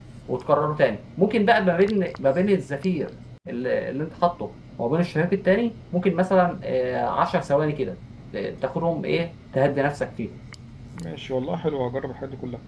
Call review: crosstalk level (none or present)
none